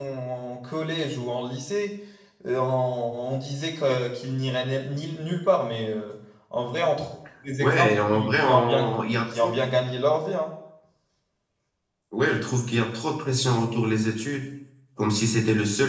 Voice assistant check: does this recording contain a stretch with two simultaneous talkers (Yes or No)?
Yes